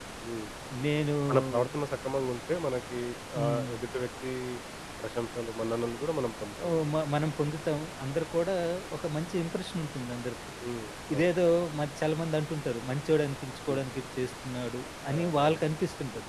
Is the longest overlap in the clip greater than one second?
No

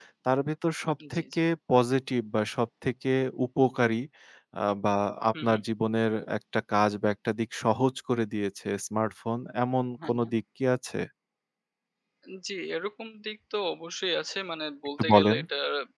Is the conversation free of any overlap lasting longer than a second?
Yes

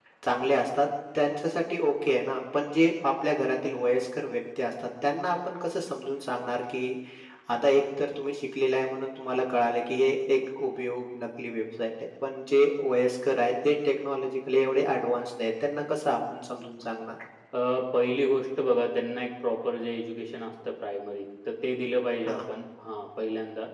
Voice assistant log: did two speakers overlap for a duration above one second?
No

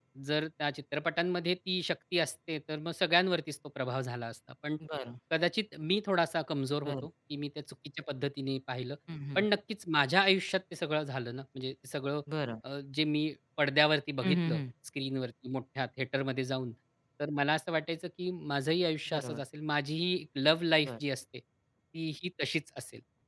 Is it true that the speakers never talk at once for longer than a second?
Yes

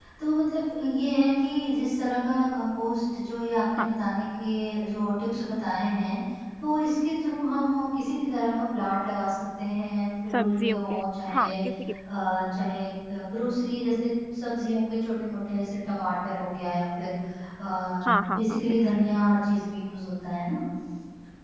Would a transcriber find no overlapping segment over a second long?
No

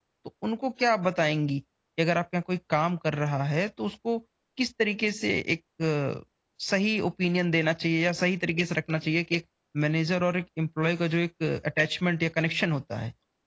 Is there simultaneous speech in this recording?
No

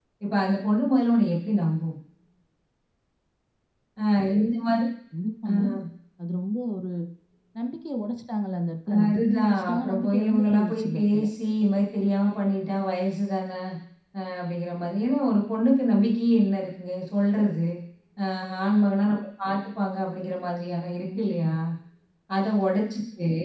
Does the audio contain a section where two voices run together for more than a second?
Yes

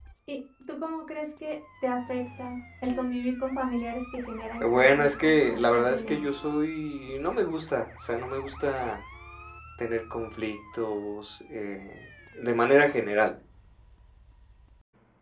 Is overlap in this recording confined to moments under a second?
No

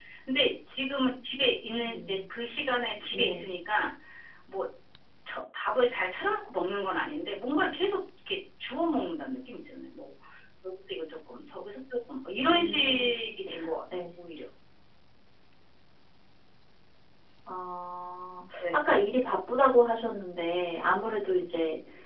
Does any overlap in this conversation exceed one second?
No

